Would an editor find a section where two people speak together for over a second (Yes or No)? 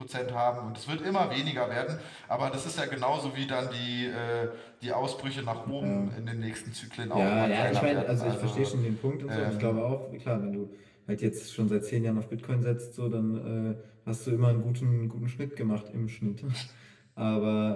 Yes